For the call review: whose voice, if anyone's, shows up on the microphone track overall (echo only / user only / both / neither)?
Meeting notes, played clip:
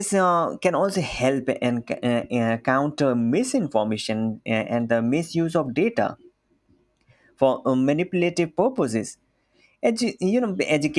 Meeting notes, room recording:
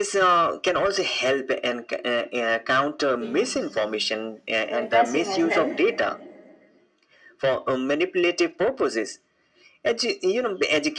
both